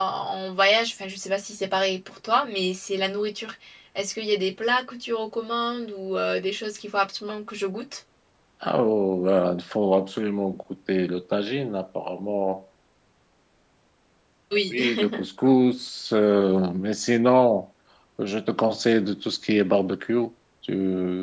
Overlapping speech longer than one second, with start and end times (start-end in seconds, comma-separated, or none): none